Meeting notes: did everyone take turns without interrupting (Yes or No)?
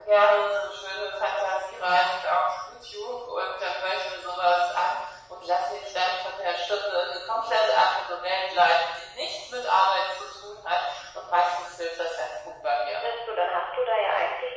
Yes